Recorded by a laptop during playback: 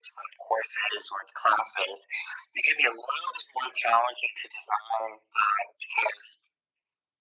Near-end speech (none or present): none